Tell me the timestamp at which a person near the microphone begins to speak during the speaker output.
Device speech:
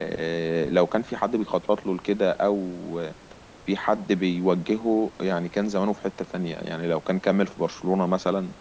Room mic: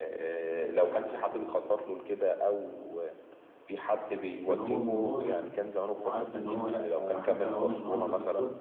4.5 s

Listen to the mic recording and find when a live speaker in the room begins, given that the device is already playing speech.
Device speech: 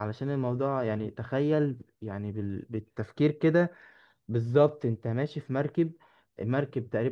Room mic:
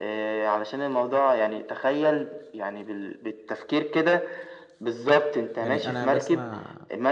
5.6 s

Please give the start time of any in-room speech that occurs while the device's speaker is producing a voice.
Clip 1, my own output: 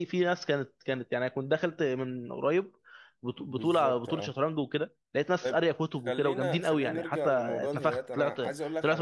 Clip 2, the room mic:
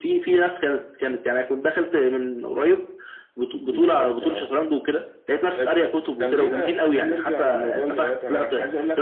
none

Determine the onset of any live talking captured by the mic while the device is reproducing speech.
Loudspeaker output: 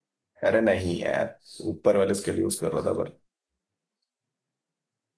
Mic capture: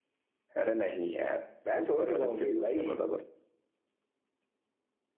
1.7 s

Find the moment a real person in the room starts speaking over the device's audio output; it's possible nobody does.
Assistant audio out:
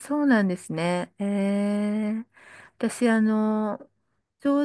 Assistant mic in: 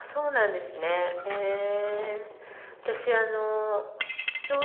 none

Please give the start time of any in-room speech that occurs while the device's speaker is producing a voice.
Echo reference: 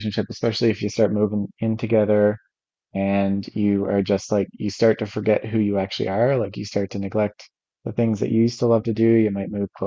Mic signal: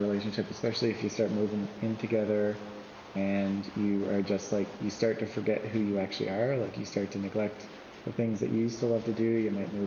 none

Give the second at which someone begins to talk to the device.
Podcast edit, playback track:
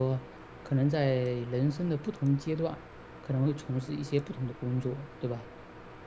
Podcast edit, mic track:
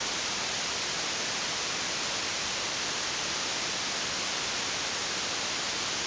none

